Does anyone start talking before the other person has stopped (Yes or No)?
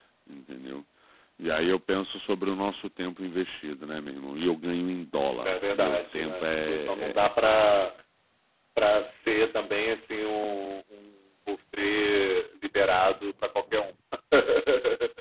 Yes